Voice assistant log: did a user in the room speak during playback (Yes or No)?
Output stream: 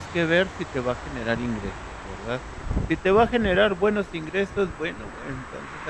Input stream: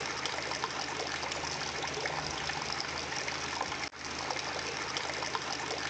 No